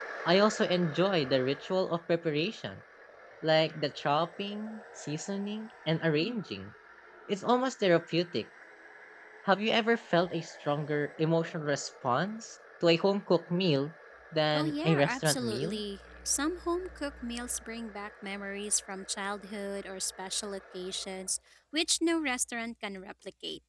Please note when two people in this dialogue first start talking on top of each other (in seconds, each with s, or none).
14.5 s